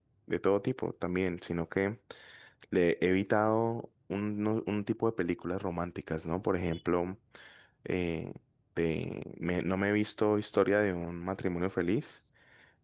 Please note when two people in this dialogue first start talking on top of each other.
none

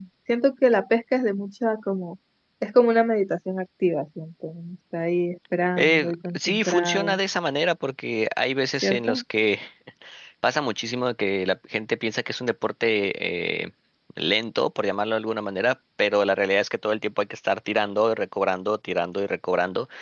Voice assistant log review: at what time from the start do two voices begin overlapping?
5.8 s

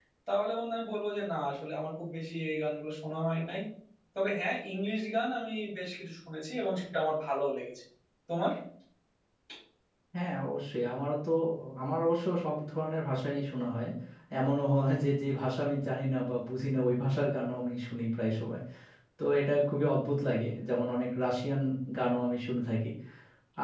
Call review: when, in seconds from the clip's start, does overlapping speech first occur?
none

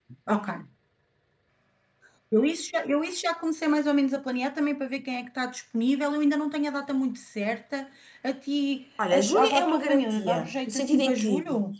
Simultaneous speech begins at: 9.0 s

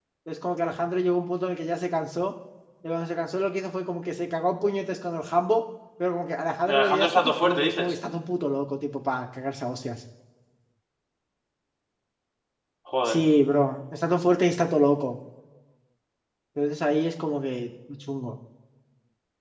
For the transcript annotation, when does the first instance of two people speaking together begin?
6.6 s

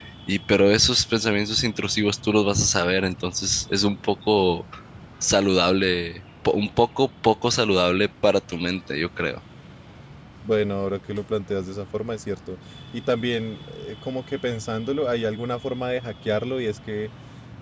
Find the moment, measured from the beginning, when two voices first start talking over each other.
none

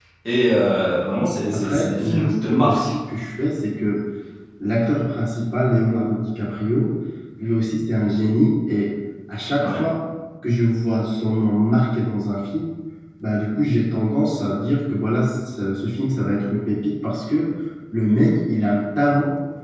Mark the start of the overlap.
1.5 s

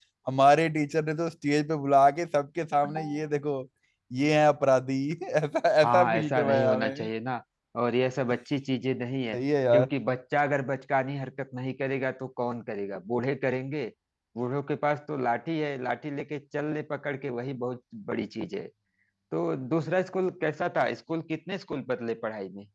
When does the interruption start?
5.8 s

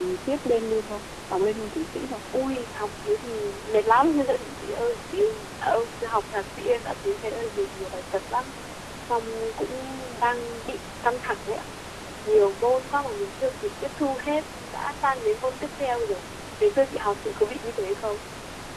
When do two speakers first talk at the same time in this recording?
none

